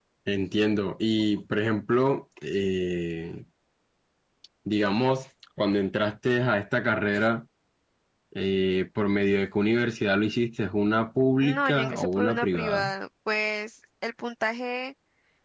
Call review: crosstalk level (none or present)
present